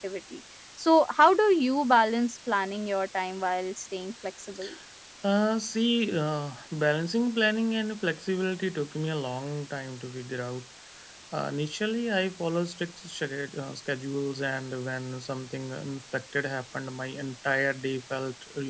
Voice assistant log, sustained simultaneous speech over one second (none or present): none